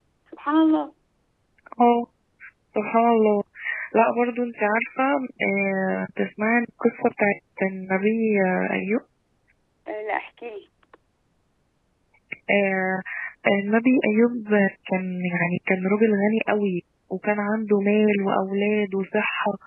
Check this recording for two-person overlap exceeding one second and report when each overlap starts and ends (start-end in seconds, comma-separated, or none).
none